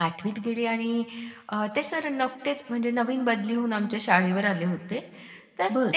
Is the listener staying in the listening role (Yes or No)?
Yes